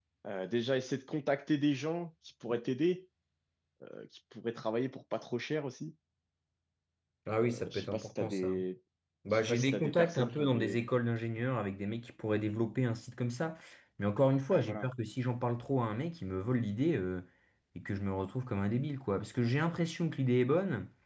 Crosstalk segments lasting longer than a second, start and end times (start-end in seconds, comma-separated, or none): 7.4-8.6, 9.3-10.8